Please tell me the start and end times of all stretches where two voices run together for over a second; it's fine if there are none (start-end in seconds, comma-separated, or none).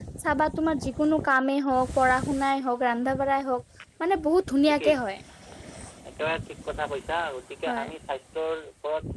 none